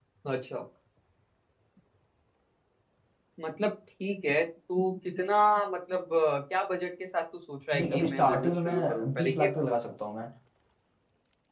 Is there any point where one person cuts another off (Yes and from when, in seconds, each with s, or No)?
Yes, from 7.7 s